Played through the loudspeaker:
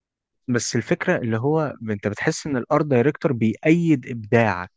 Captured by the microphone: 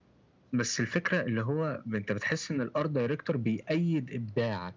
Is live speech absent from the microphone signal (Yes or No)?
Yes